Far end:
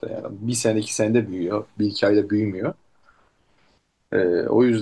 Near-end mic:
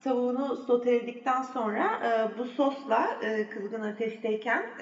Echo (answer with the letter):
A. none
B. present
A